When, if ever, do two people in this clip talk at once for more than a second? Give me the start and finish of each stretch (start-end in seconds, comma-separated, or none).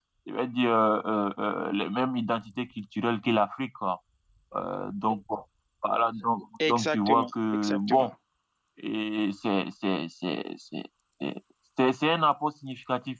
6.7-8.1